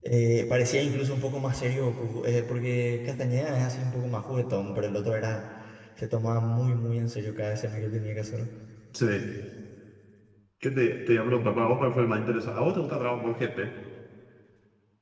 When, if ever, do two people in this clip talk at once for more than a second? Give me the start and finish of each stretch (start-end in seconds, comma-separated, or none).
none